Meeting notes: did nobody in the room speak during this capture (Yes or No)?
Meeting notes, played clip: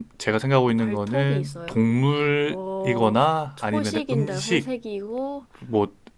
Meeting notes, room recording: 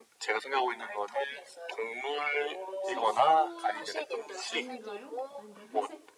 No